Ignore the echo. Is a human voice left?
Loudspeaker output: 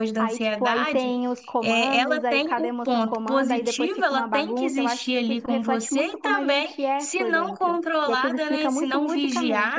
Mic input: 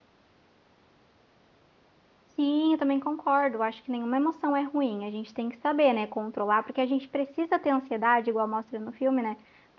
Yes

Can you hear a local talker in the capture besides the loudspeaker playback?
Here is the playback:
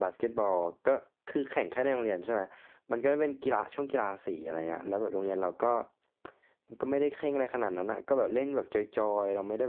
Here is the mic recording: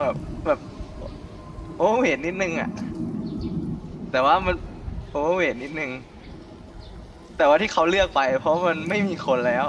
Yes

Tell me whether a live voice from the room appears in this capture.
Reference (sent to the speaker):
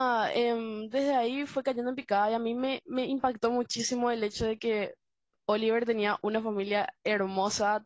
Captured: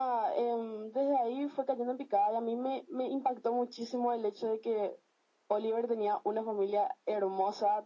No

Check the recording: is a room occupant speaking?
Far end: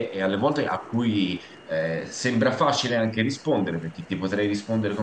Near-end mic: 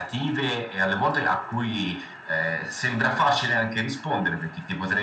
No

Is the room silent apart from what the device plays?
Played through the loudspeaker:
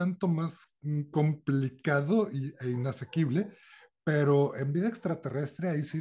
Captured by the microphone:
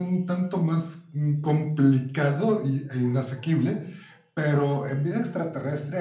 Yes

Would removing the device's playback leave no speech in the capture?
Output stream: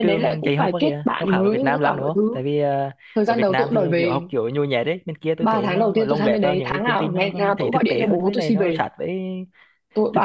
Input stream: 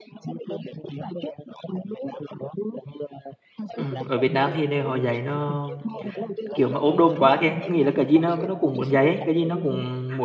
No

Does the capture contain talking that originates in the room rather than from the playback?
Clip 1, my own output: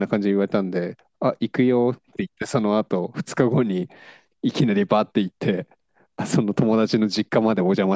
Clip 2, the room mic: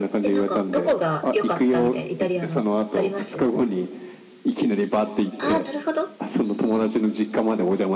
Yes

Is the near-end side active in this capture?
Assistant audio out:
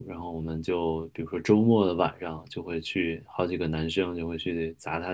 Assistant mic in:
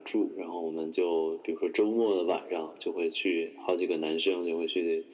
No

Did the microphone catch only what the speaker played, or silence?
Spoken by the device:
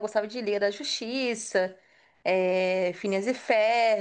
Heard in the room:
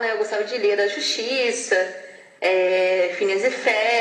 Yes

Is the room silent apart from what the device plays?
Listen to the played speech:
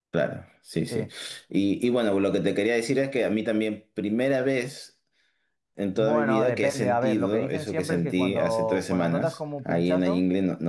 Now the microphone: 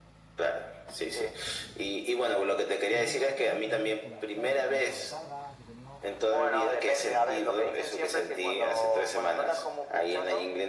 No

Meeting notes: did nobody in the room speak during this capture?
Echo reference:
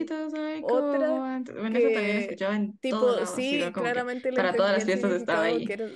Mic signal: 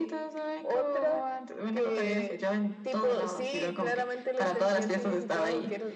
Yes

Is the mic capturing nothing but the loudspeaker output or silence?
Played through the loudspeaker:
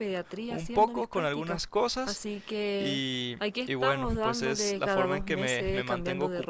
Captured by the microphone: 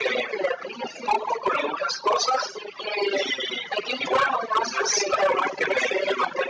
Yes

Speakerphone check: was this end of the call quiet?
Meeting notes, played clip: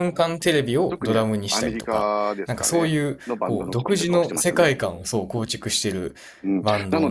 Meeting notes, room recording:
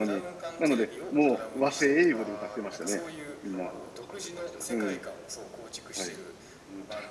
No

